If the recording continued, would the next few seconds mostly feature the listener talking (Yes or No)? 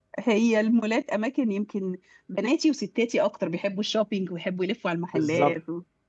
Yes